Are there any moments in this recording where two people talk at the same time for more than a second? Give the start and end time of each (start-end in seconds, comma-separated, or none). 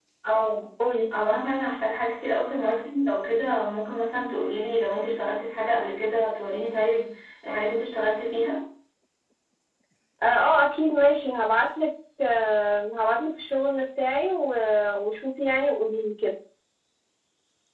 none